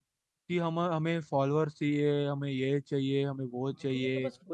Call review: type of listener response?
taking over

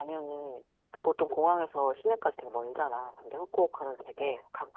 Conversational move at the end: listening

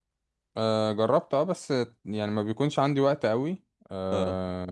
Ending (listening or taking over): listening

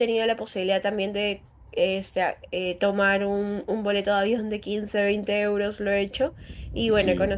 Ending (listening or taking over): listening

